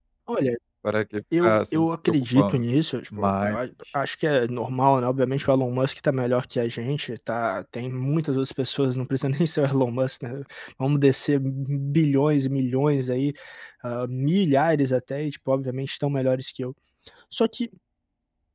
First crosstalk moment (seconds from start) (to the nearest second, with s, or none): 1 s